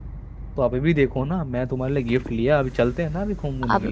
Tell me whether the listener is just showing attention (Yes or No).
No